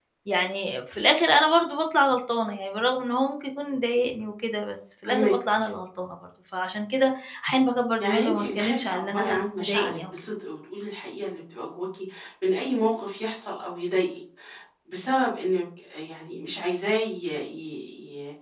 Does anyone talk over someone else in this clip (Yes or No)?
Yes